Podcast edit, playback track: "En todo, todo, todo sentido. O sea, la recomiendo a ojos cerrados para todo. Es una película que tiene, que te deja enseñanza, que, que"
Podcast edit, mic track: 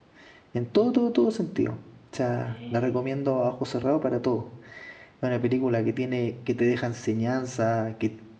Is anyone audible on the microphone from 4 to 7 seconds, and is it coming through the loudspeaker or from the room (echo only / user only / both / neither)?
echo only